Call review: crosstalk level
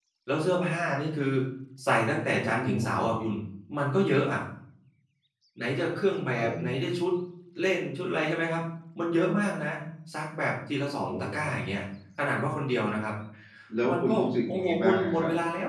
present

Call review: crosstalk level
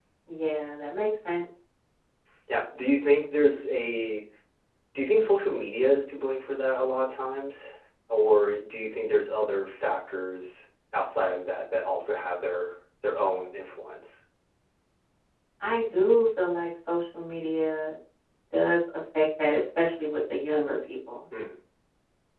none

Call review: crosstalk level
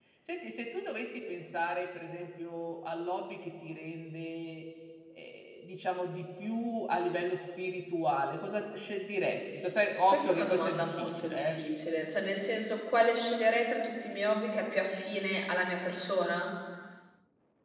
present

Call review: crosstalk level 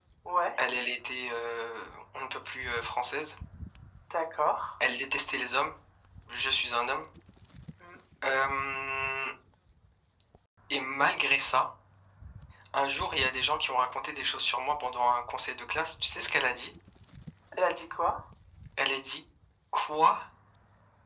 none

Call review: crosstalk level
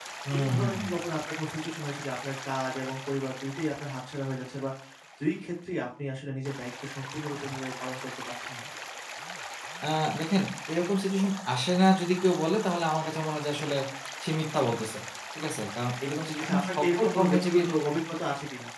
present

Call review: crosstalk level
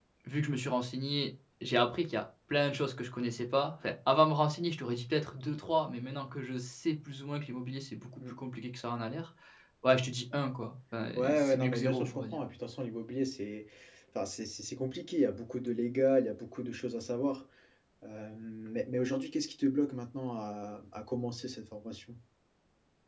present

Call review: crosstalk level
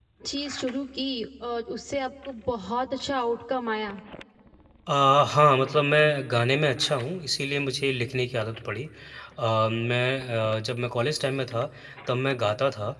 none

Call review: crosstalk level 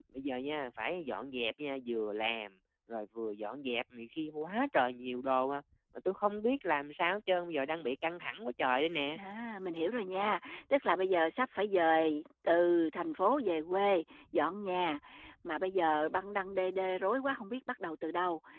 none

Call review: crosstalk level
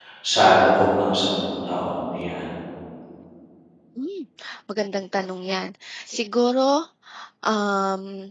none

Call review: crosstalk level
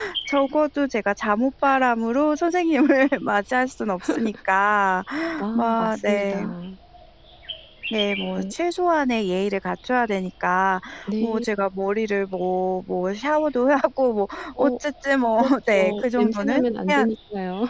present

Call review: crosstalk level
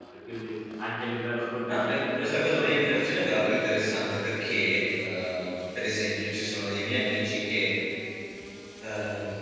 present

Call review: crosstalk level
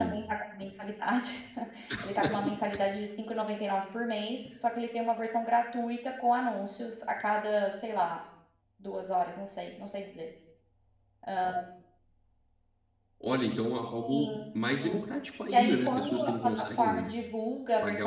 present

